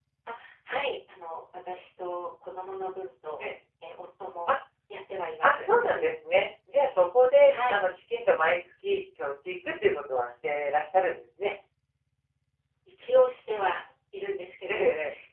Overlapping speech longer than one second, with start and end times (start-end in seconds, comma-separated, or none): none